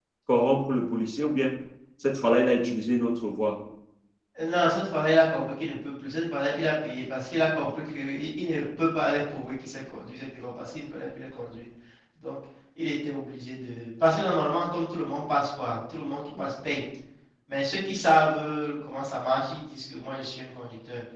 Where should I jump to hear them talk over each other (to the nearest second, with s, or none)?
none